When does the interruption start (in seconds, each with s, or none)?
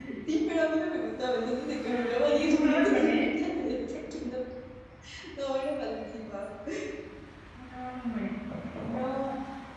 1.8 s